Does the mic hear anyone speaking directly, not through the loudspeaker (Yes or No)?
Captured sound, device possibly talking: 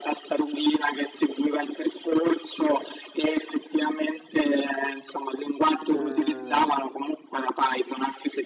Yes